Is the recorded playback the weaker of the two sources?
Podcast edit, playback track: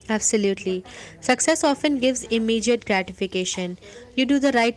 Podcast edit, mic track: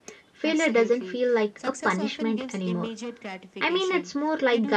Yes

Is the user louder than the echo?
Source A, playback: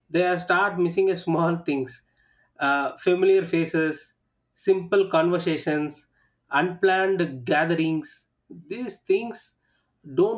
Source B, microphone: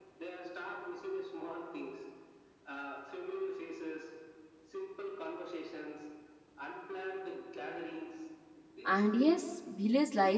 Yes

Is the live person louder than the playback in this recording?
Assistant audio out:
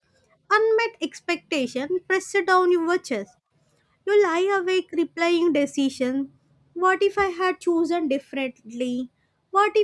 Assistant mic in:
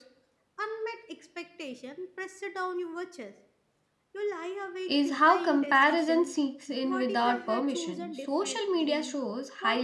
Yes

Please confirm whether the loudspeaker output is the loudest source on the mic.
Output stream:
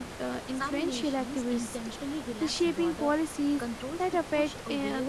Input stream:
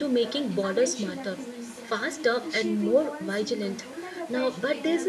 No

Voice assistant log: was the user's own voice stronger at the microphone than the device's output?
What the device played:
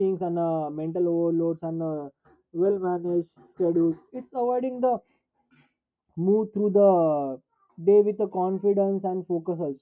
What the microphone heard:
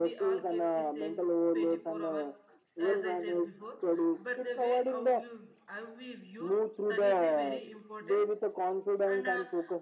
No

